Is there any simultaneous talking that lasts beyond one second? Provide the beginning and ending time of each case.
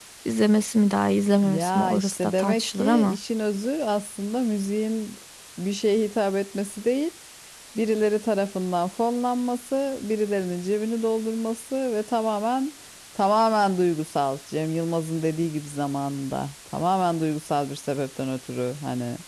1.4-3.2

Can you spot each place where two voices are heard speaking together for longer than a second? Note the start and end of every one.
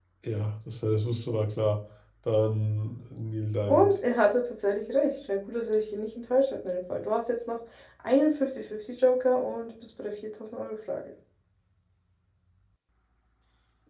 none

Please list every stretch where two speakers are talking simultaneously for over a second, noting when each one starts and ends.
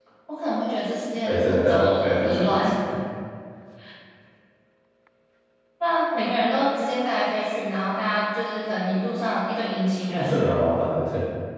1.2-2.4

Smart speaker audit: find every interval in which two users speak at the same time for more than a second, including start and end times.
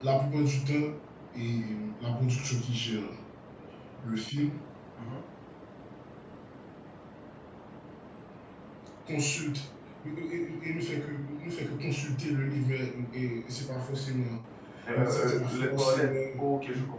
14.9-16.2

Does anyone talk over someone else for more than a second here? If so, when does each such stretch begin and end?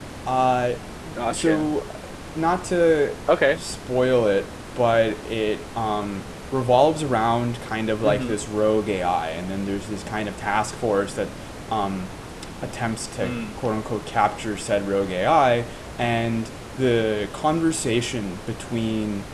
none

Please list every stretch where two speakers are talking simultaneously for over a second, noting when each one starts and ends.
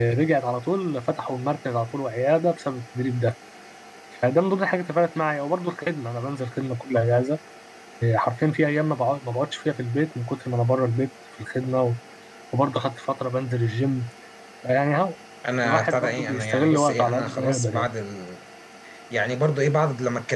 15.6-17.9

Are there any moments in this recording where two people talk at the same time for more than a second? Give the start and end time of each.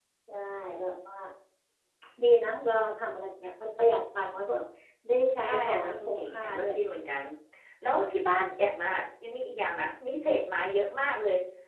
5.4-6.7

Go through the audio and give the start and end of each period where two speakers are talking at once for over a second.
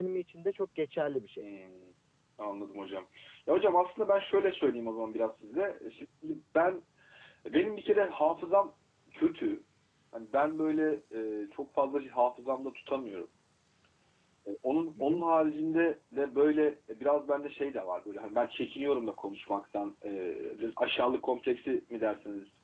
none

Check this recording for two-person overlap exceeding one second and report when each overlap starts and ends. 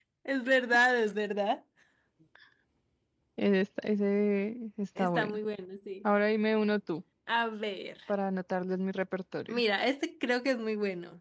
none

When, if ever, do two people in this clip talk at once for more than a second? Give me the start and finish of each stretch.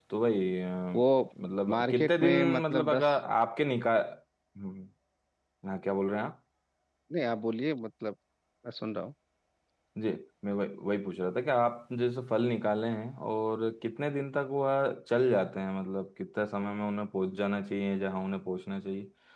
1.7-3.0

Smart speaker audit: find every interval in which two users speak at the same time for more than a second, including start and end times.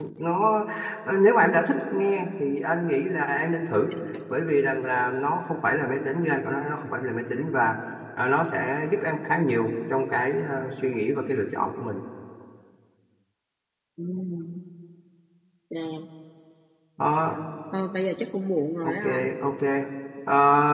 none

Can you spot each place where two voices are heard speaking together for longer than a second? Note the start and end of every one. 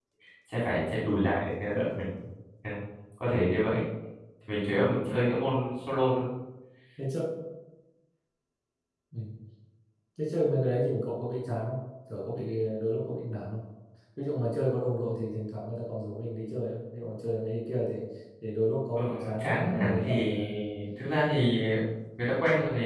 18.9-20.3

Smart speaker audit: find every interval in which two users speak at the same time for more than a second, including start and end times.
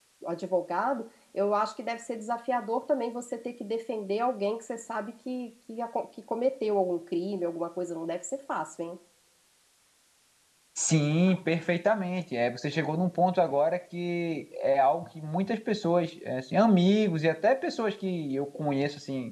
none

